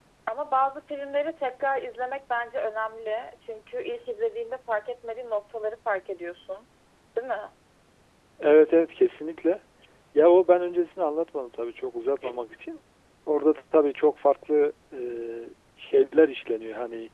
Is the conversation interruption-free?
Yes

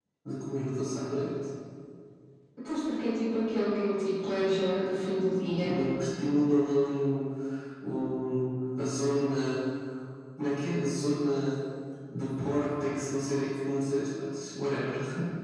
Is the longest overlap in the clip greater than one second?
No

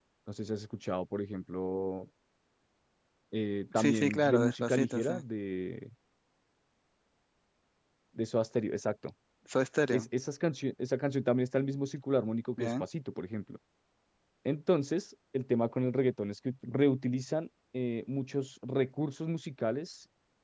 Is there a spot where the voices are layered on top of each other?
Yes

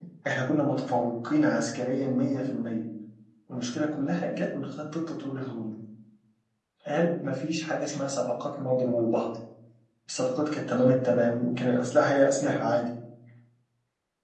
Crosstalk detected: No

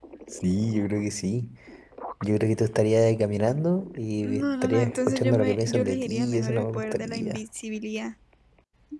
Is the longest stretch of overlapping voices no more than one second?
No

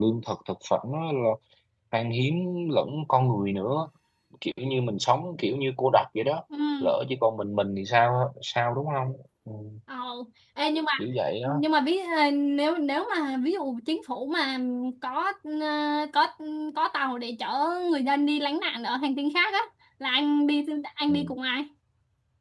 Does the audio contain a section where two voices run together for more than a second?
No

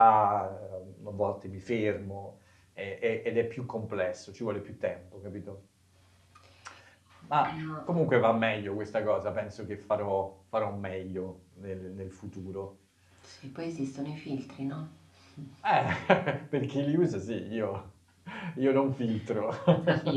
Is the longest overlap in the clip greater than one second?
No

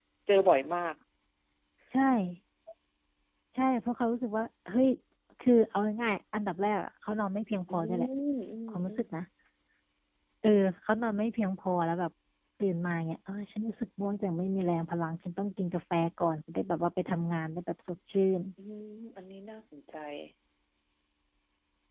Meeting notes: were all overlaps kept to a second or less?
Yes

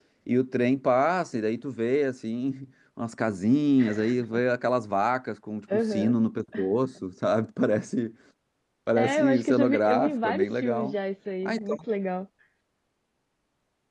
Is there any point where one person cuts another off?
Yes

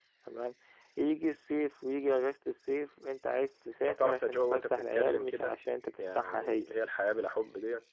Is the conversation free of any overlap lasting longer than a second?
No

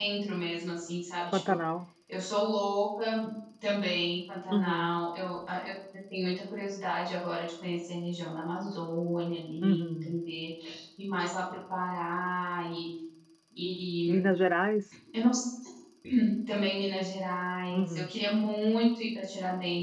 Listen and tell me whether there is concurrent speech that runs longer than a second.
No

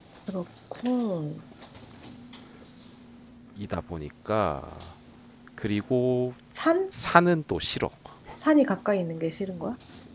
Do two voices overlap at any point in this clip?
No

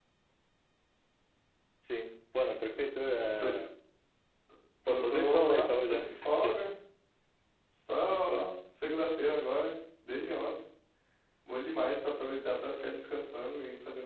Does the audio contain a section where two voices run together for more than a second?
Yes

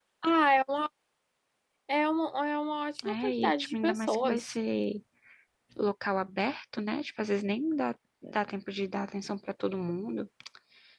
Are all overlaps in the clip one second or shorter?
No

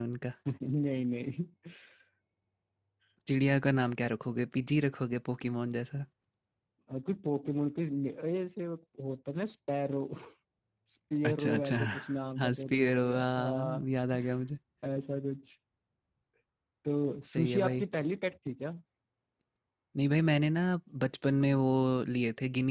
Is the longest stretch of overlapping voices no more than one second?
No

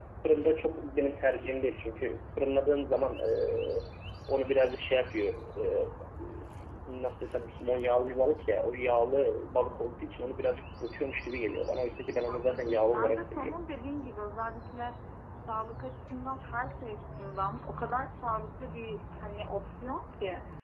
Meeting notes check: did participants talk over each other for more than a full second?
Yes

